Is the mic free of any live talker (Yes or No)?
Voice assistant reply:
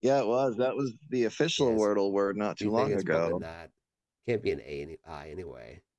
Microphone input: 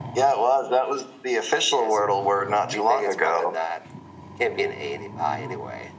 Yes